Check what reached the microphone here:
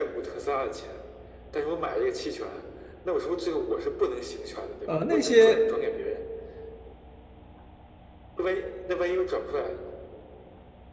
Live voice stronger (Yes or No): Yes